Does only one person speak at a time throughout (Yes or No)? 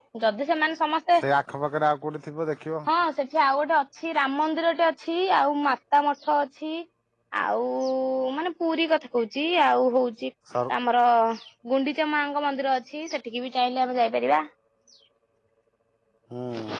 Yes